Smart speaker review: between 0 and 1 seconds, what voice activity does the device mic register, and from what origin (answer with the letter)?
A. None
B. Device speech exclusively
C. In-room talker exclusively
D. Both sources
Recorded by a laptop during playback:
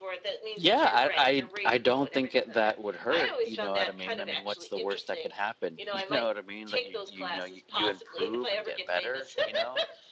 D